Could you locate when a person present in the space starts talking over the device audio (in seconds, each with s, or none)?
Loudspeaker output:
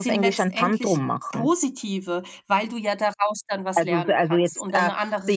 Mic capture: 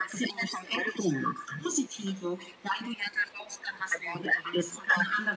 none